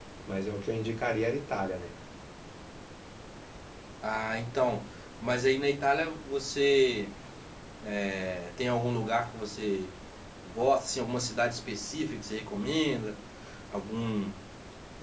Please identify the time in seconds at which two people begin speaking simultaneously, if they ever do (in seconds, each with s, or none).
none